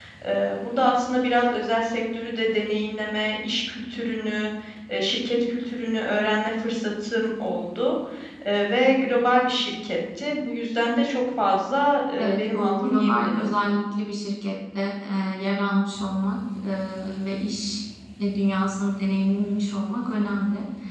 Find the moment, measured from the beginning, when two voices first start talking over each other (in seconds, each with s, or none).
12.2 s